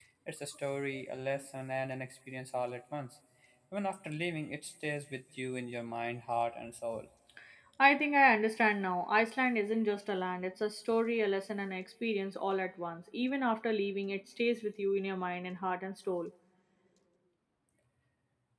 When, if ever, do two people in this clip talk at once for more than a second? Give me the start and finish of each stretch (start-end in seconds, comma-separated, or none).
none